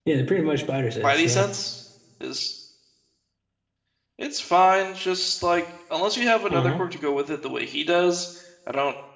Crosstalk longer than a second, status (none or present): none